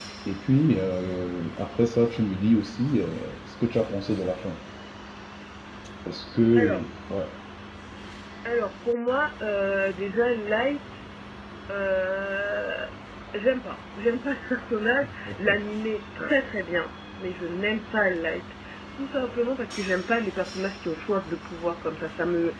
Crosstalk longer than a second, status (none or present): none